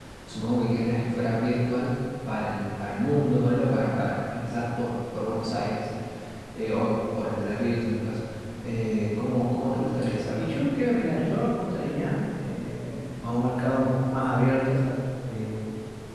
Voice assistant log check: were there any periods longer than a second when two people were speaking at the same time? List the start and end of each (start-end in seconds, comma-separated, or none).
none